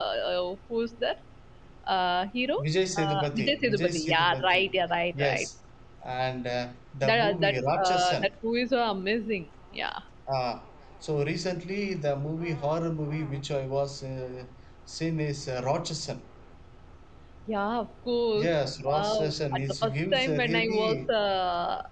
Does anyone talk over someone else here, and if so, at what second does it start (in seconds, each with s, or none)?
3.0 s